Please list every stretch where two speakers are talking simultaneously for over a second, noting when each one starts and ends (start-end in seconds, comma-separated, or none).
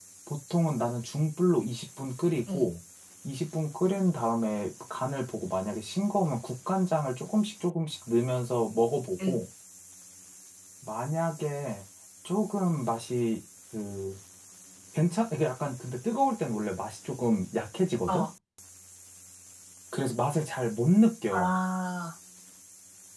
none